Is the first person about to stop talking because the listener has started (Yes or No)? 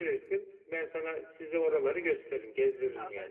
Yes